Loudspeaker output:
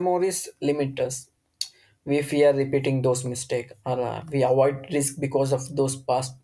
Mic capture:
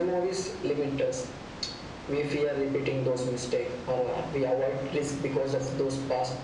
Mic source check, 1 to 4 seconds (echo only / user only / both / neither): echo only